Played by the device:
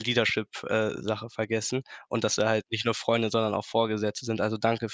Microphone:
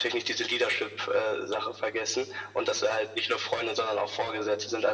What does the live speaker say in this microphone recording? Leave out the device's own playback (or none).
none